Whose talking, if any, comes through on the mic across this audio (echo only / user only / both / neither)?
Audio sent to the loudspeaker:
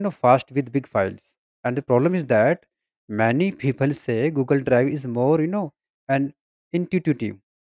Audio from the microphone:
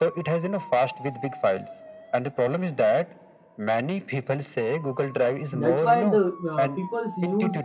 both